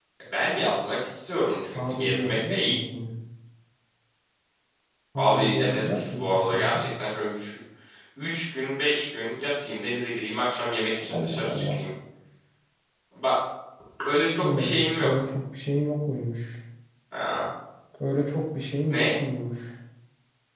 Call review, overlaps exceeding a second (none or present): present